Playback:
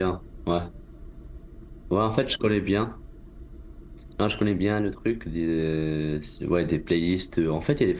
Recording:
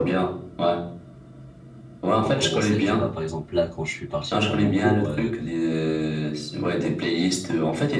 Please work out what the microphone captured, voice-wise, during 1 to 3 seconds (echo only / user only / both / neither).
both